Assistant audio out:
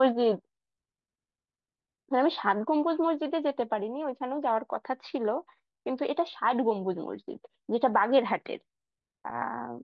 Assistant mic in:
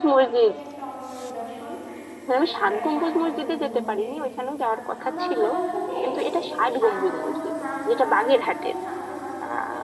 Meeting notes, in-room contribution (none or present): present